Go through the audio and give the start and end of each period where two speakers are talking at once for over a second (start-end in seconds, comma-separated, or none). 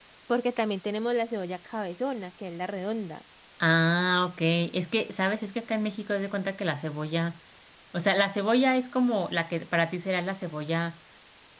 none